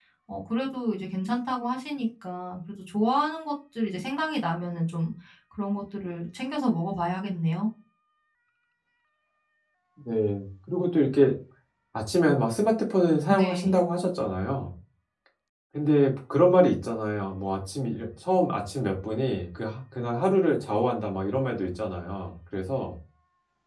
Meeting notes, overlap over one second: none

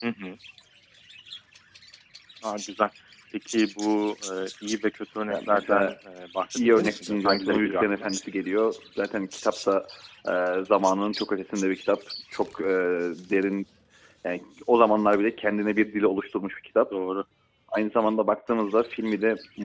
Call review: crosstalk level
present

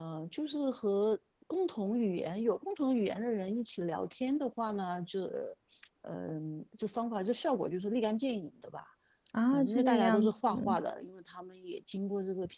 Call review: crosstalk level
present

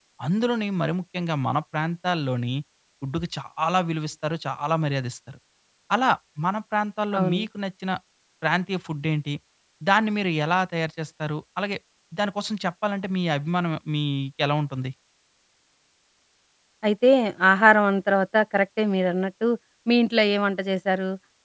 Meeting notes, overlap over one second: none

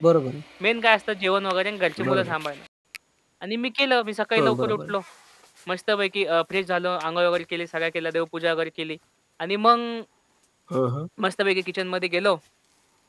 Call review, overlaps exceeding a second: none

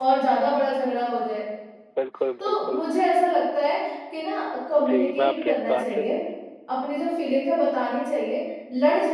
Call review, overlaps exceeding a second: present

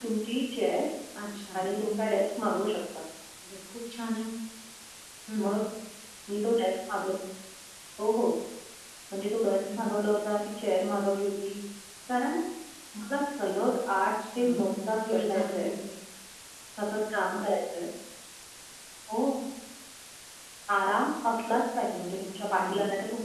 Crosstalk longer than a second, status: present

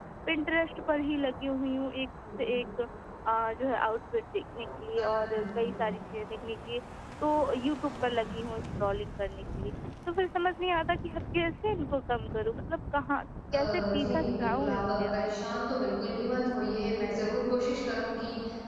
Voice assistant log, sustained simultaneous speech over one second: present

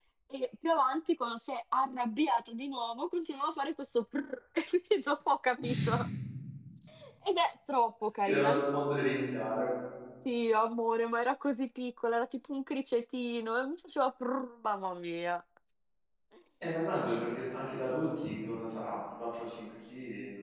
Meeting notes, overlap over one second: none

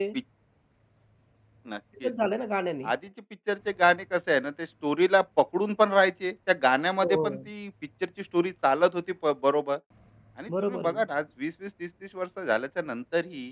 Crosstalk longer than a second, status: none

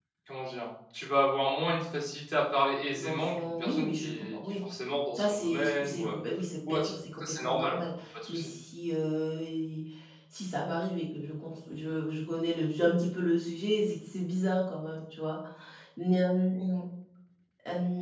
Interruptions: present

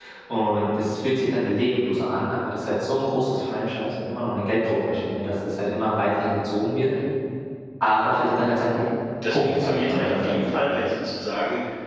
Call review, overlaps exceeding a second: present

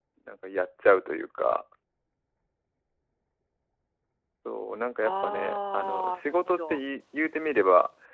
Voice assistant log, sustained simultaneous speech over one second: present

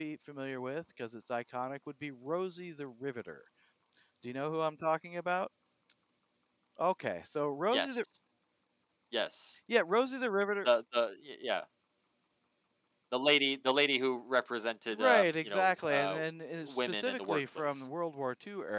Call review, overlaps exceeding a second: present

